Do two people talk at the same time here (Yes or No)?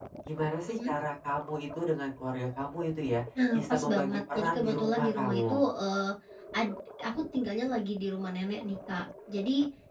Yes